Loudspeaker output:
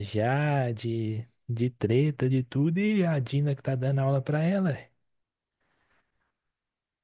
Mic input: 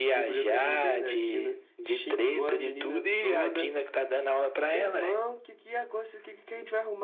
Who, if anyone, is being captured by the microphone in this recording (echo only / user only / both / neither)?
both